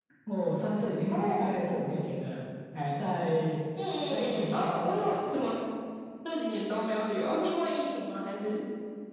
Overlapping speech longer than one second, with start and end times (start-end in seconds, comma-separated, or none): 4.1-5.3